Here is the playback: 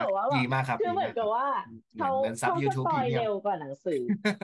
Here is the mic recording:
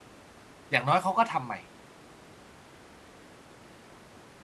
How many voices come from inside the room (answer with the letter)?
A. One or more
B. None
A